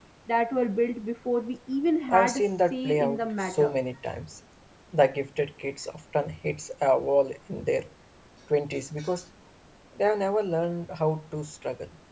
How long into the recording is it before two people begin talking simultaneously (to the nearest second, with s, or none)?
2 s